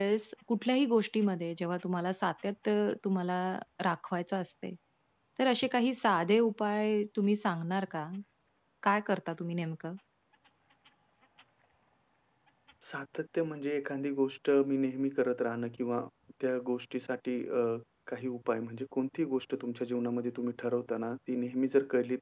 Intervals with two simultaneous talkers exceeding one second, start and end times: none

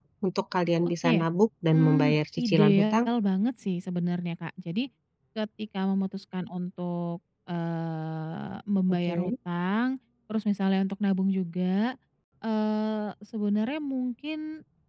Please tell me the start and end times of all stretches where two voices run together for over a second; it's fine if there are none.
1.7-3.0

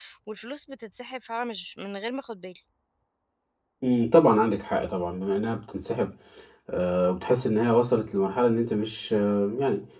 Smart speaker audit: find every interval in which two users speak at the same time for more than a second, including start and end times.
none

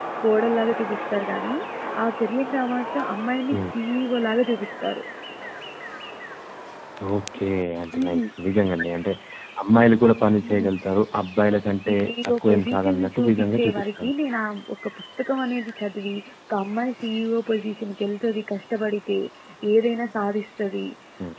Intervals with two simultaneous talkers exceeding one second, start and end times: 11.9-14.1

